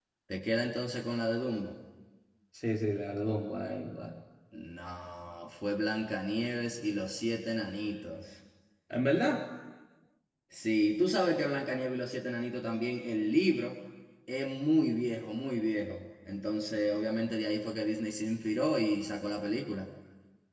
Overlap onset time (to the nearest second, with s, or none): none